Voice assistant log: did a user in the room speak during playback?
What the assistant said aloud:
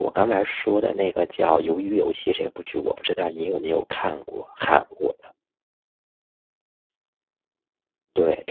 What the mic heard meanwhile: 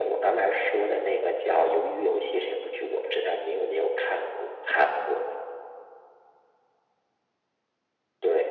No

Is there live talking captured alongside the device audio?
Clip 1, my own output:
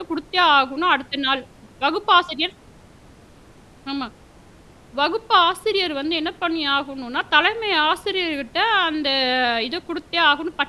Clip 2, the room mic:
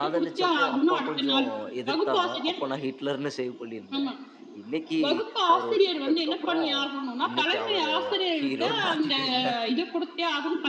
Yes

